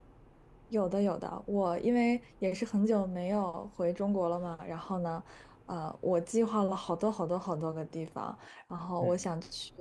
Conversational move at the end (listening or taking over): listening